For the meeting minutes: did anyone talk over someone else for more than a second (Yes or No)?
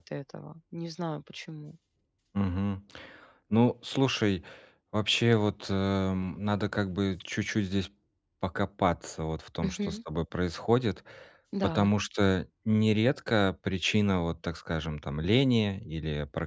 No